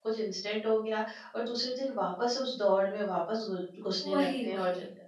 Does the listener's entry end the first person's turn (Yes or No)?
No